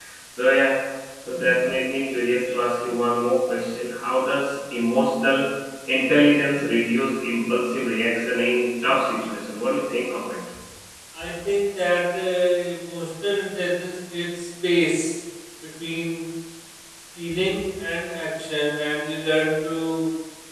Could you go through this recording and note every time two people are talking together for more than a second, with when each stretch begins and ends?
none

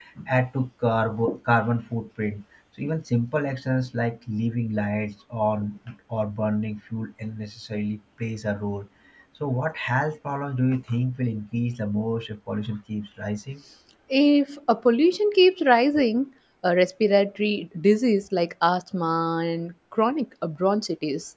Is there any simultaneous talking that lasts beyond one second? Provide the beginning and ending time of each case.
none

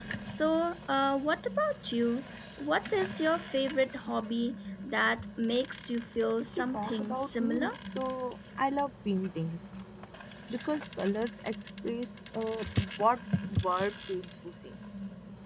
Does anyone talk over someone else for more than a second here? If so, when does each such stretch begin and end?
6.4-7.7

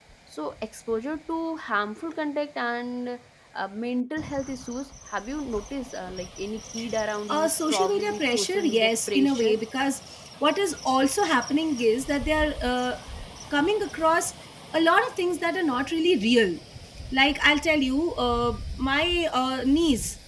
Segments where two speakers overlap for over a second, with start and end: 7.3-9.6

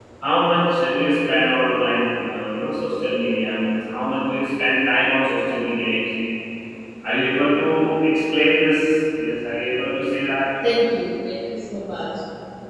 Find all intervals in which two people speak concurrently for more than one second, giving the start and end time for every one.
none

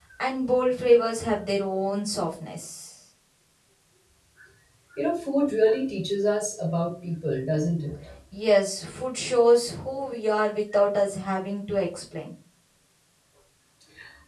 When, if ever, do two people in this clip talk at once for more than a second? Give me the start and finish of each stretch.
none

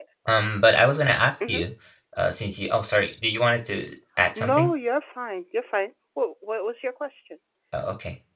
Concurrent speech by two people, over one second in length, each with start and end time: none

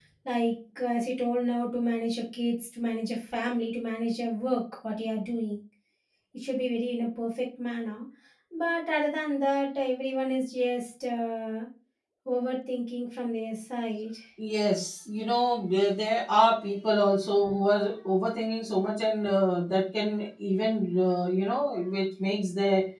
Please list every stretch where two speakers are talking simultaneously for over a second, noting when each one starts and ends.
none

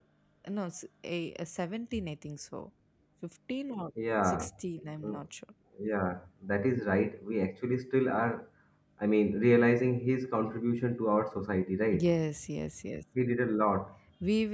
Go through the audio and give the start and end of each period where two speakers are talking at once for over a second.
none

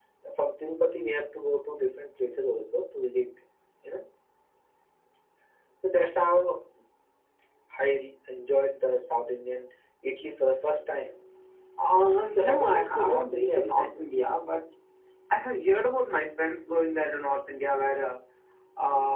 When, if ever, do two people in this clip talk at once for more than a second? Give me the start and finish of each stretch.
12.4-14.0

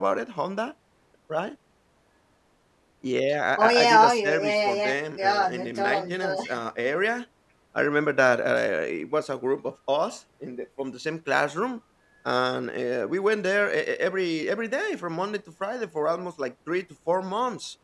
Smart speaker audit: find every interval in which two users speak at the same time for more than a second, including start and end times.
3.6-6.5

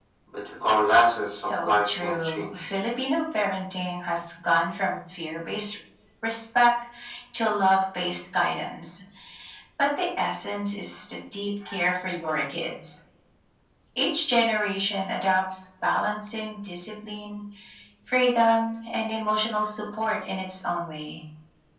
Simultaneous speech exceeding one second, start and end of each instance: 1.3-2.5

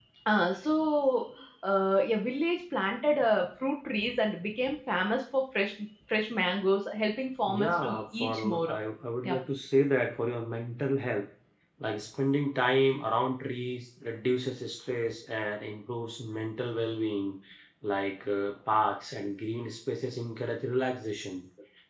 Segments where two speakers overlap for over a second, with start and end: 7.5-8.8

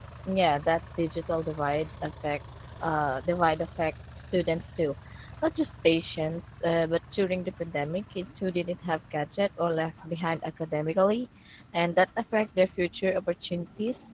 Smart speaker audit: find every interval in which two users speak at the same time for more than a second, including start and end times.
none

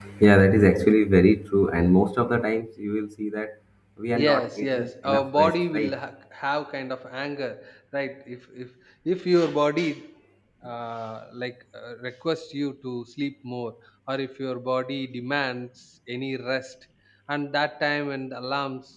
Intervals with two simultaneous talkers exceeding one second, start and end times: 4.2-6.0

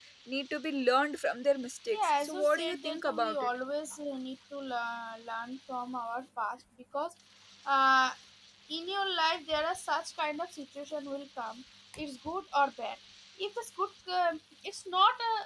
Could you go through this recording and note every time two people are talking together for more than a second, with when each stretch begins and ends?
1.9-3.5

